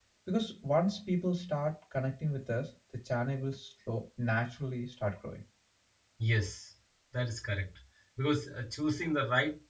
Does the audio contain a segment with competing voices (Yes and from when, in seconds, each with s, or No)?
No